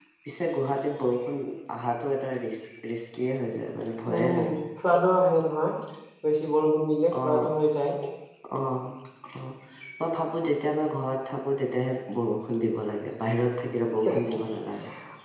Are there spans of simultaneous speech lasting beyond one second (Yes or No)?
No